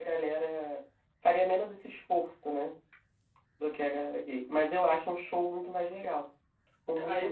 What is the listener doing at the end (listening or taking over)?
taking over